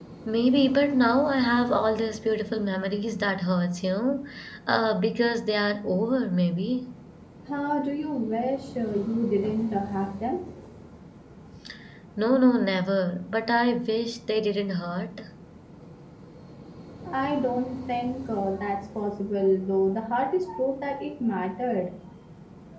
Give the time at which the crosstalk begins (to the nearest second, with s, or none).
none